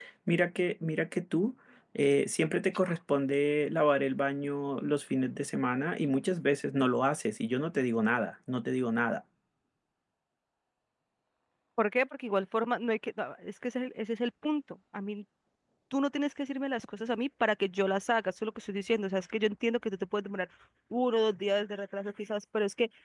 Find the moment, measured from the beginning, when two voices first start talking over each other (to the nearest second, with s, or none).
none